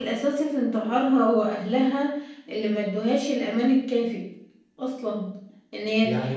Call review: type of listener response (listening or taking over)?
taking over